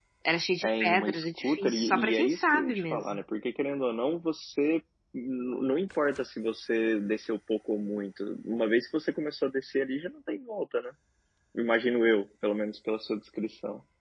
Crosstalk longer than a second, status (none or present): present